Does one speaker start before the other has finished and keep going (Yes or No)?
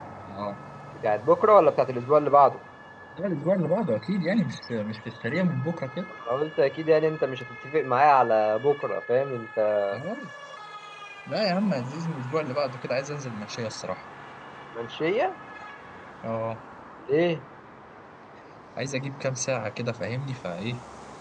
No